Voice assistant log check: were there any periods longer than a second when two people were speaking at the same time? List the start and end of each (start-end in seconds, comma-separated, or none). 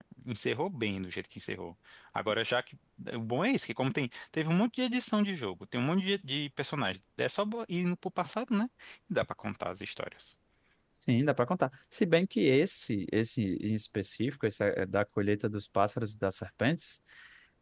none